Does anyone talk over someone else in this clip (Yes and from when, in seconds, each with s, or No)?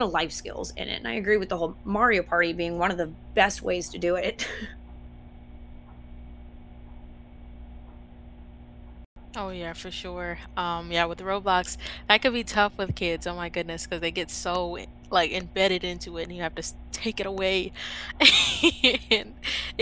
No